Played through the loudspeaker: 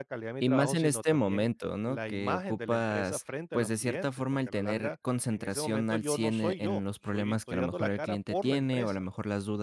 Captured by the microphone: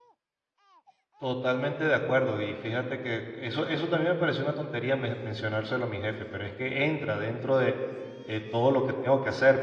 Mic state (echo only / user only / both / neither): user only